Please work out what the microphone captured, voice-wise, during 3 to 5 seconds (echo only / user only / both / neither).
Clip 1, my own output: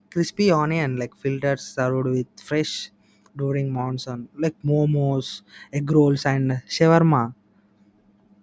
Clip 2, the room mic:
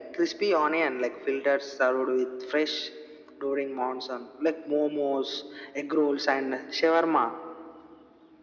echo only